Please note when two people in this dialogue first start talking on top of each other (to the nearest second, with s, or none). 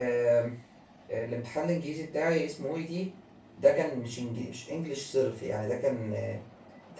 none